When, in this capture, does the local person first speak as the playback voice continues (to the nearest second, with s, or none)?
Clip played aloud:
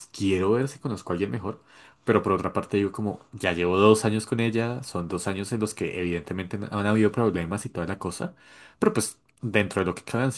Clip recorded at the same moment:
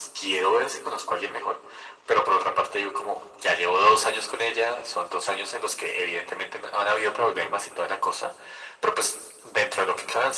none